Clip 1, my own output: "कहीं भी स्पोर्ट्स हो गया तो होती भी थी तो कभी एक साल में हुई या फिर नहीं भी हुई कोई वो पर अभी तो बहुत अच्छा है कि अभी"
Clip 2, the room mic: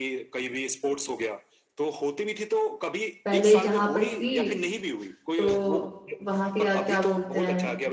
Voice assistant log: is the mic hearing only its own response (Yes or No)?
No